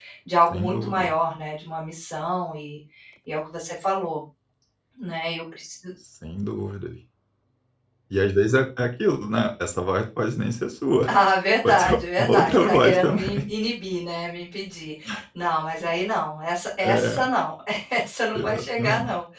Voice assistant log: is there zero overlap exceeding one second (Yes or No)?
No